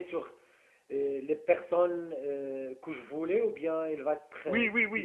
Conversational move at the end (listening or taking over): taking over